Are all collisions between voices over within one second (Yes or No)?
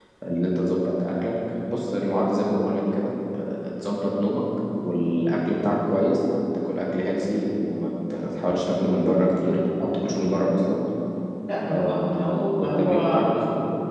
No